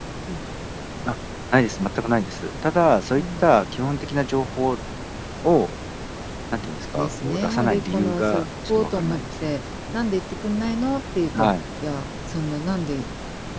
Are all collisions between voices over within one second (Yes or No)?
No